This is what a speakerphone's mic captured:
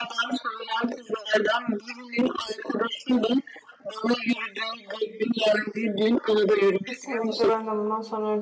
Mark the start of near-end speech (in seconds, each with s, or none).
6.8 s